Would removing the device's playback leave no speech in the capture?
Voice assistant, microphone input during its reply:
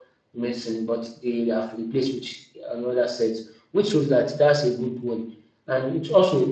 No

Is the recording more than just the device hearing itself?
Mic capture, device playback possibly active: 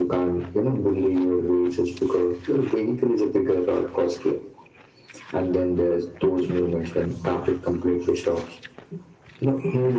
No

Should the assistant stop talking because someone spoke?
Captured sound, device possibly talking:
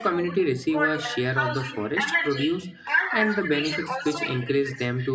Yes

